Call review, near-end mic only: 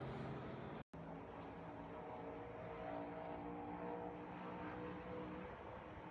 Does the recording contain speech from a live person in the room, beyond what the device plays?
No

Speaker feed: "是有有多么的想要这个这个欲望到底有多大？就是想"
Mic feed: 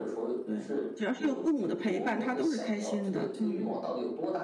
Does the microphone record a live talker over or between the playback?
Yes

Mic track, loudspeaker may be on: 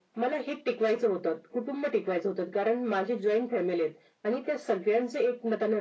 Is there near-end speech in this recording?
No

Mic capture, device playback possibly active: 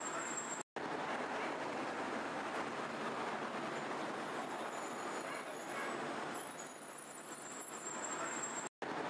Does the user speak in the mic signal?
No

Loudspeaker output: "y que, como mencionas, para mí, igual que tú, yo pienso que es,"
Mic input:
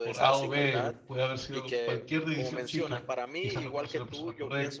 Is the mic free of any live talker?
No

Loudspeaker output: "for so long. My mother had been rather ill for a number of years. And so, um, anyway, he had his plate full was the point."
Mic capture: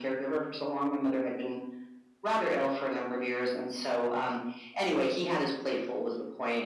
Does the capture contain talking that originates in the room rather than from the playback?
No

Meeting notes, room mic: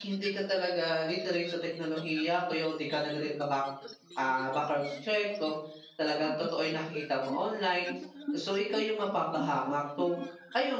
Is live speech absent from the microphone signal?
No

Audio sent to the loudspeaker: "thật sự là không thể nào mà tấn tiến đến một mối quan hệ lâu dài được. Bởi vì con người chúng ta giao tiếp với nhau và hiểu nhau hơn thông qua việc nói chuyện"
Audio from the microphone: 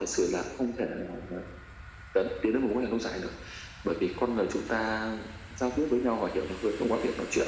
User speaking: No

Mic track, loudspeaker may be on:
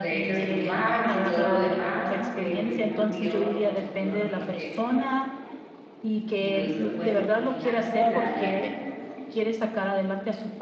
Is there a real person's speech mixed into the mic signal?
Yes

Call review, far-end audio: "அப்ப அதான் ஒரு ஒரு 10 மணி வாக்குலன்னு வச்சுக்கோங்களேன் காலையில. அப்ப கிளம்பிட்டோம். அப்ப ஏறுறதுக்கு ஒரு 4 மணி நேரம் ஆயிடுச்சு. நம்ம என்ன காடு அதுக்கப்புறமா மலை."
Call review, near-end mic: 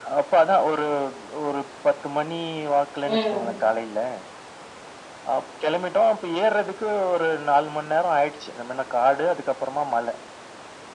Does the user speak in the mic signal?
Yes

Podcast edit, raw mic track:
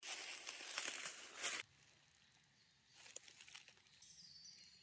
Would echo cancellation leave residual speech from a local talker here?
No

